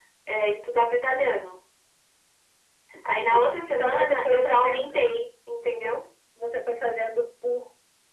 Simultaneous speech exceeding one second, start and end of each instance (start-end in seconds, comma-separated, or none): 3.0-5.0